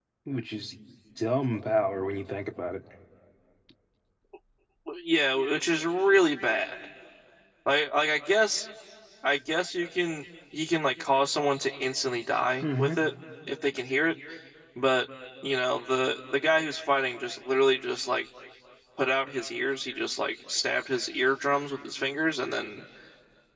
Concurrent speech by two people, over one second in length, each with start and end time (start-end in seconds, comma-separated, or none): none